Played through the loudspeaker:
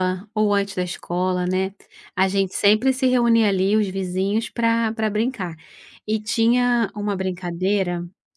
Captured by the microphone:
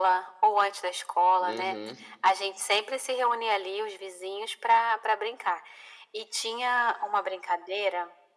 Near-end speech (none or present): present